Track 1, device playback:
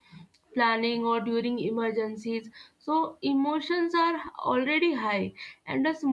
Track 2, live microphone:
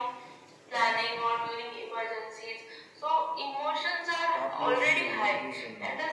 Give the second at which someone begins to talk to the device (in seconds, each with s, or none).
4.4 s